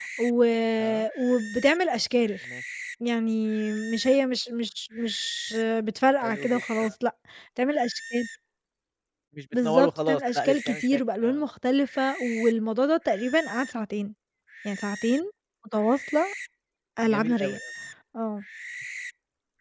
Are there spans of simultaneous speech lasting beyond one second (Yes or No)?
Yes